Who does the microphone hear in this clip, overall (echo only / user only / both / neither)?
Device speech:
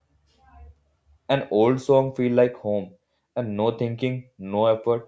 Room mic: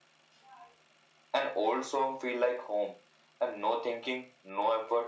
echo only